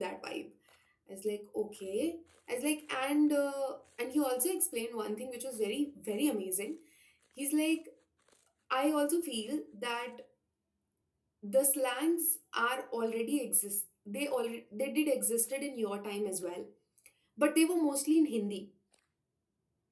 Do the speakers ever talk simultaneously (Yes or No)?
No